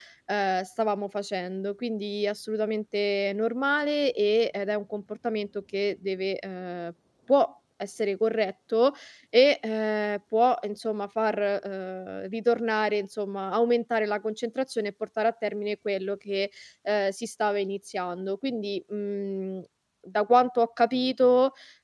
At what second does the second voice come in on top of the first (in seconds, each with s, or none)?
none